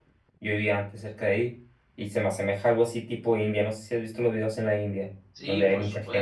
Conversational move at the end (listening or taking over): taking over